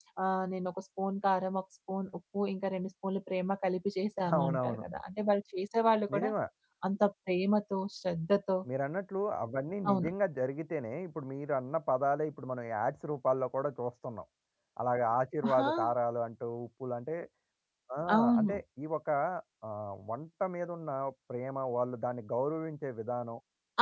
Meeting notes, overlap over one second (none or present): none